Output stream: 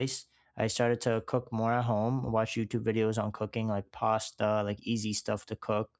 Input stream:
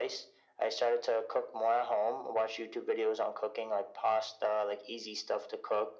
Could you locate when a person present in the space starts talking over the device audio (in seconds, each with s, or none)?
none